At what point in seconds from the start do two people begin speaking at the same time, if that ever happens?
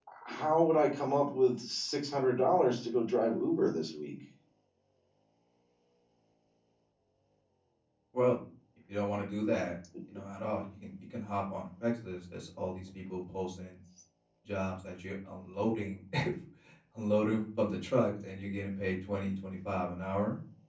none

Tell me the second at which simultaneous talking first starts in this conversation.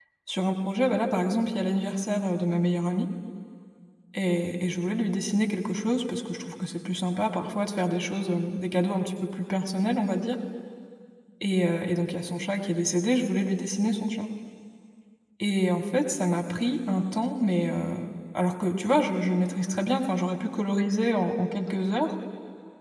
none

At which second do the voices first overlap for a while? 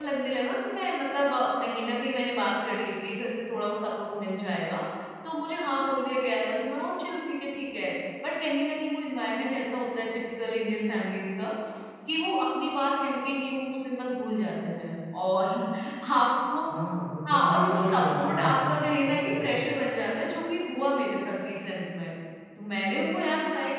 17.3 s

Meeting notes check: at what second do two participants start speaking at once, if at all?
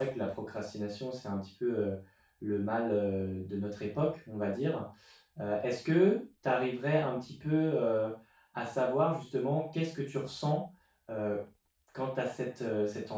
none

